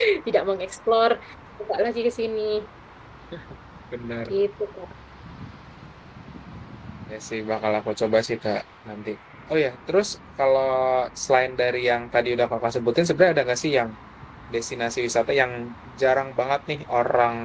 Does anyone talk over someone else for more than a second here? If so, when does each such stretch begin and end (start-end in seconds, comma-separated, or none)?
none